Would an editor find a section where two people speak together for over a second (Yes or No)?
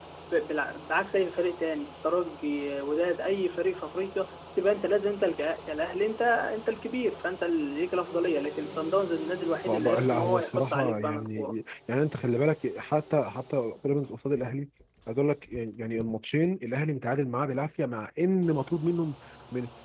Yes